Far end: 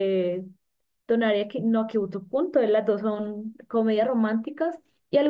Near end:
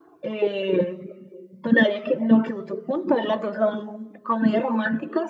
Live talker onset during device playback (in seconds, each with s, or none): none